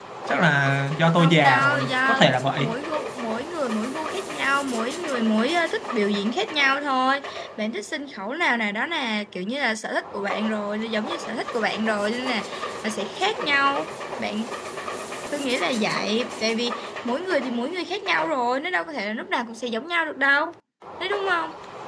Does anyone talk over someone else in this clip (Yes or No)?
Yes